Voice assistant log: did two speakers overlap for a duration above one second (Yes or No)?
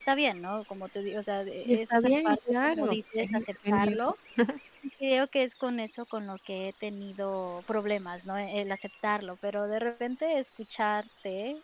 Yes